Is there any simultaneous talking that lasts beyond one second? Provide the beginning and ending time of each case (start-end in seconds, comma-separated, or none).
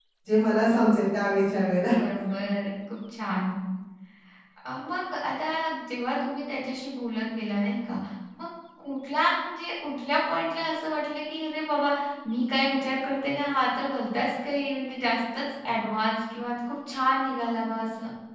none